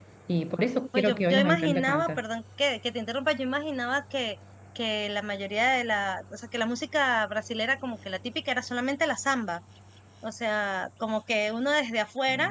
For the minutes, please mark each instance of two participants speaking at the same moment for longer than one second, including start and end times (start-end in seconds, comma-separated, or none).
1.0-2.2